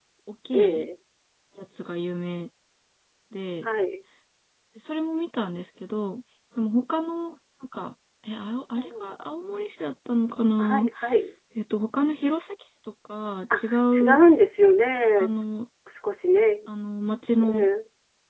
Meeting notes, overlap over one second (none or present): none